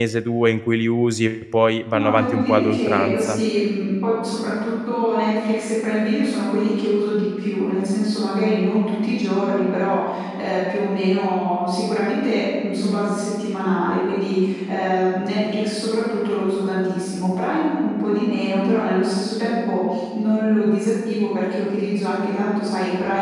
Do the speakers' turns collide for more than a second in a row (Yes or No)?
Yes